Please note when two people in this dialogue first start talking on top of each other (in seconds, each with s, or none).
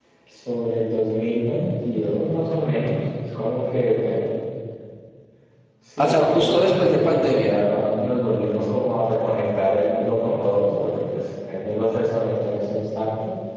6.0 s